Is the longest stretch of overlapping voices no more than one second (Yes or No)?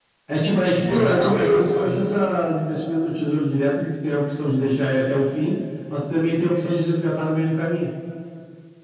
No